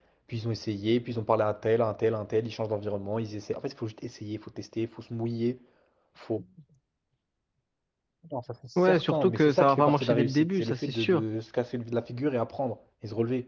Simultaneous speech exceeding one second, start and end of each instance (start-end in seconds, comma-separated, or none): 8.8-11.2